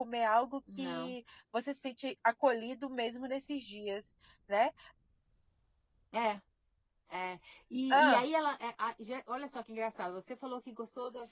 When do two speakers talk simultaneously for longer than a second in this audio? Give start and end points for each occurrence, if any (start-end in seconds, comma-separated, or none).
none